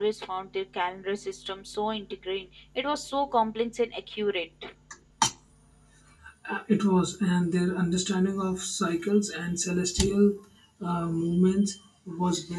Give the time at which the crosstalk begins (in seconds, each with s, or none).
none